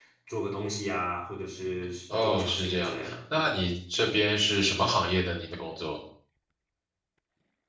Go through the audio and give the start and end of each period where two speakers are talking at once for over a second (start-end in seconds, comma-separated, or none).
2.2-3.4